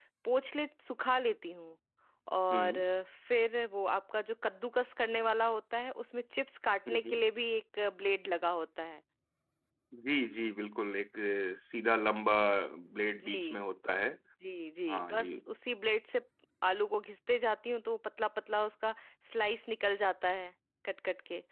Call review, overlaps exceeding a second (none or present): none